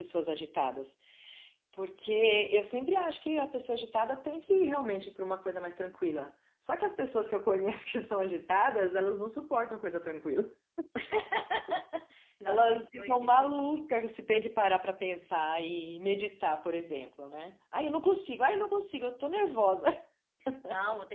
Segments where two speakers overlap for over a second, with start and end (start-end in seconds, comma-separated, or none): 12.5-13.7